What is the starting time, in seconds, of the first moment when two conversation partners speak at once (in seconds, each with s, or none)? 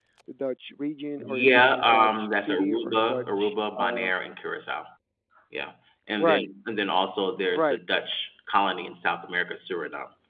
1.2 s